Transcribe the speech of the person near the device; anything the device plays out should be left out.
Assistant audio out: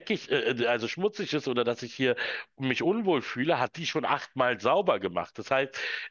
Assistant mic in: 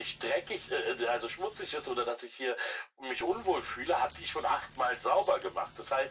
none

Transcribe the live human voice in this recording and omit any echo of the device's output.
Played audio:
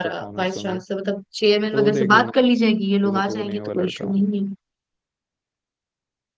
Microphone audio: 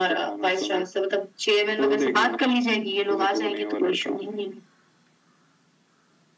none

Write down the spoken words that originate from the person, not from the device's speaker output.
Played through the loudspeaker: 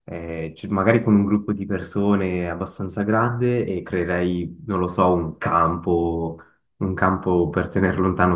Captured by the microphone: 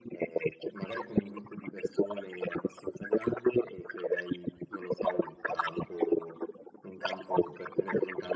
none

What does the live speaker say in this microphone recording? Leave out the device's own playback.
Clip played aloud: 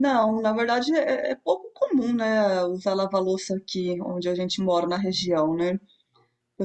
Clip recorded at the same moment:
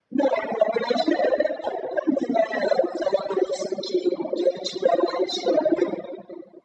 none

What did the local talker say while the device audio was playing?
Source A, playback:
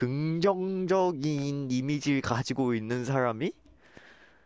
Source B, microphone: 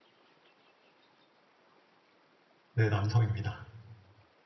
네, 남성입니다.

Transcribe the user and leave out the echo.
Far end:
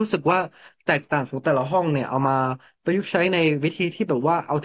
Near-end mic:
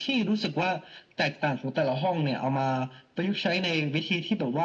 none

